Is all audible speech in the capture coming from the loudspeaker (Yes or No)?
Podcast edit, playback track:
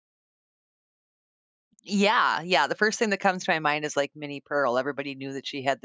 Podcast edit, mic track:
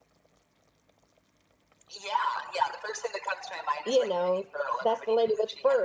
No